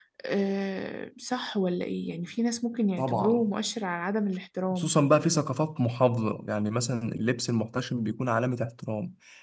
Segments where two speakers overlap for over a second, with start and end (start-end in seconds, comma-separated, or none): none